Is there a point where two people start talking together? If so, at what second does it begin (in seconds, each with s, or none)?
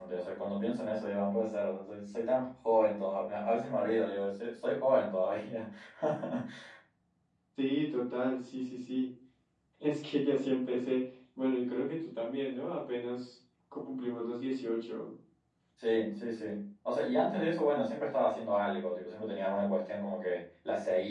none